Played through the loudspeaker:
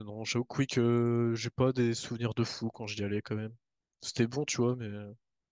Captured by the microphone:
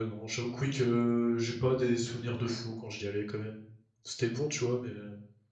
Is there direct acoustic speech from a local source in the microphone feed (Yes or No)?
No